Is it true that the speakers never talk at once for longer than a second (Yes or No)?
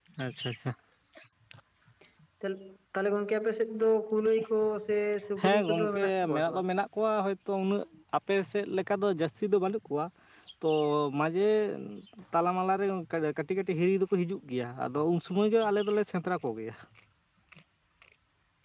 No